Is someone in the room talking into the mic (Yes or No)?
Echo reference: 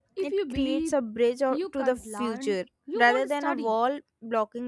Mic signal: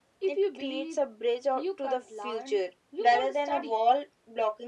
No